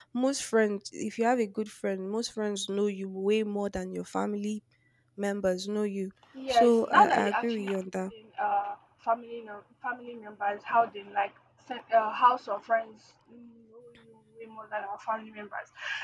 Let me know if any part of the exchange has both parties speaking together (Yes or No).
Yes